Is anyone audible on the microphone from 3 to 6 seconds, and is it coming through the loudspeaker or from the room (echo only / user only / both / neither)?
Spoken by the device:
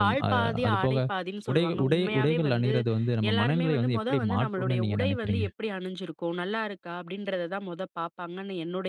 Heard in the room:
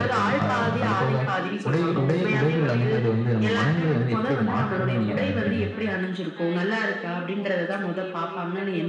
both